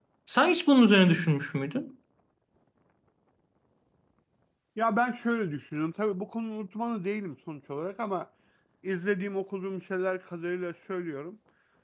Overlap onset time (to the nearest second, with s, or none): none